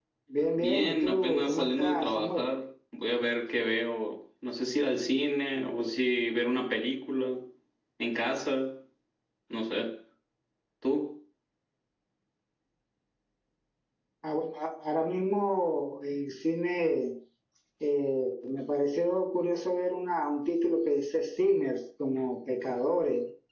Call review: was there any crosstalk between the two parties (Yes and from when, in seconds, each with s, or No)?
Yes, from 0.6 s